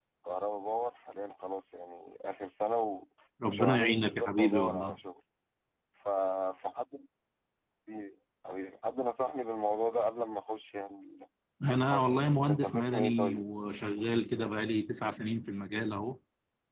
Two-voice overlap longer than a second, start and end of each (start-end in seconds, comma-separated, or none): 3.5-5.0, 11.7-13.4